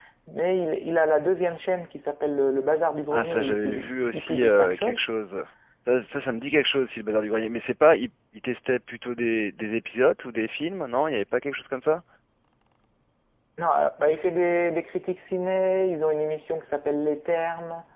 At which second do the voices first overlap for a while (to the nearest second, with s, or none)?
3 s